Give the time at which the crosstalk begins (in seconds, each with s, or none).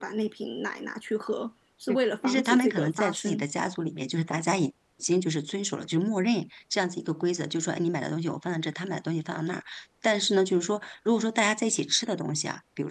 2.2 s